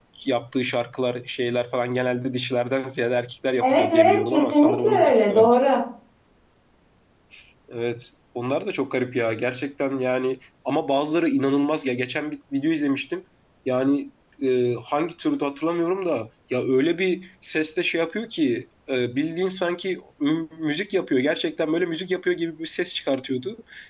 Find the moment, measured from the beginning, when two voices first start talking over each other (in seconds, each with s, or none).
3.6 s